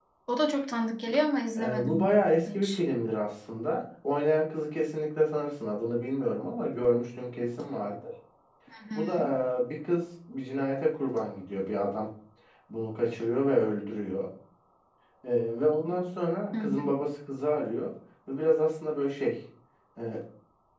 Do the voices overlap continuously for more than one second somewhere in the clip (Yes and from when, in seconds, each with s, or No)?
Yes, from 1.6 s